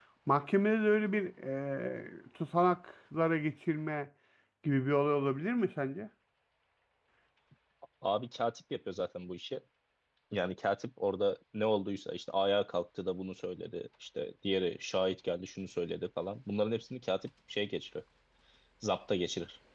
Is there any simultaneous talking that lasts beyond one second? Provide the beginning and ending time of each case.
none

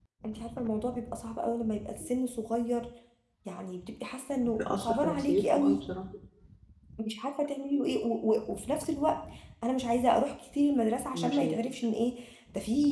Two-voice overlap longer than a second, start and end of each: 4.6-5.8

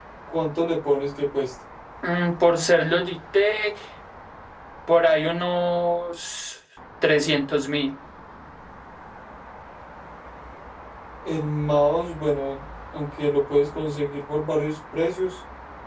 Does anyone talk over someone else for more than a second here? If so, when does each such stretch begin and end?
none

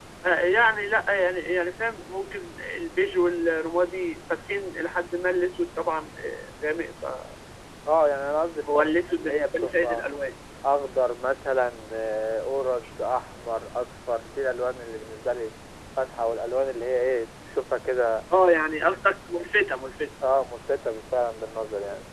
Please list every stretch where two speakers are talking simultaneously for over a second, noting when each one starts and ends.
8.7-10.0

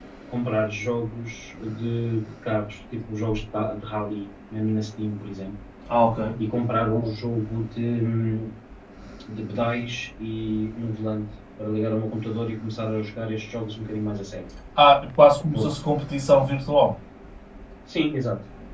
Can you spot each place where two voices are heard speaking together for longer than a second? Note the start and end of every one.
none

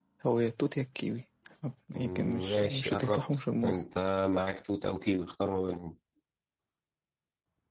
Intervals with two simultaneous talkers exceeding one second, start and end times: 2.0-3.8

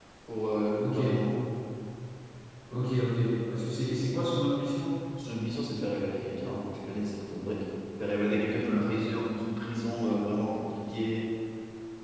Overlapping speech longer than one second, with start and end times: none

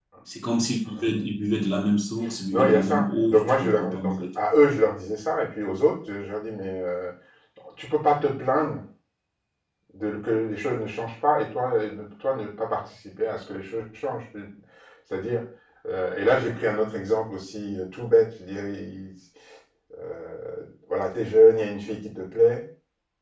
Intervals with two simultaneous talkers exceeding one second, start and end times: 2.5-4.3

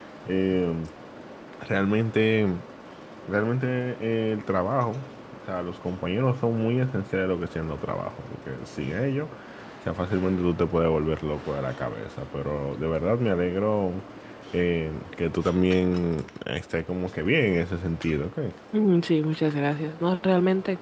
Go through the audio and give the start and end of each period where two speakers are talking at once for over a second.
none

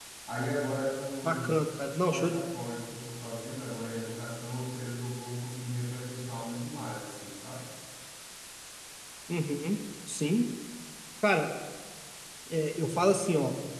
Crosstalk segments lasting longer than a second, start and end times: none

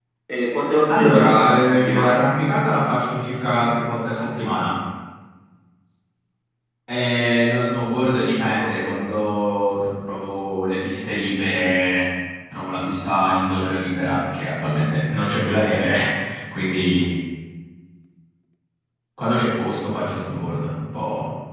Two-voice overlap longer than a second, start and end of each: 0.9-2.2

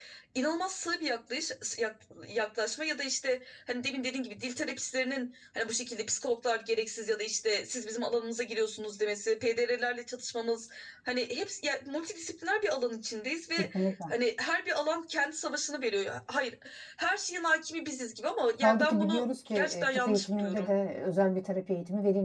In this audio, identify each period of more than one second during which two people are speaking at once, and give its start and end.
18.6-20.7

